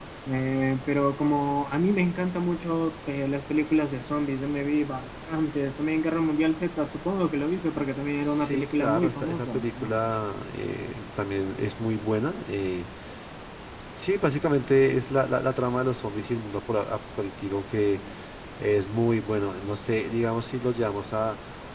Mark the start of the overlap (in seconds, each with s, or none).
8.2 s